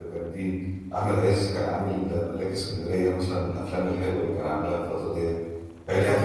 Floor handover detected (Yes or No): No